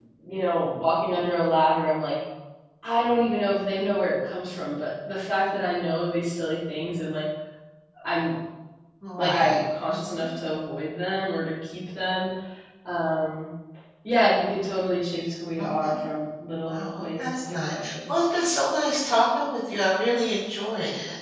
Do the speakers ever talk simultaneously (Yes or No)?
Yes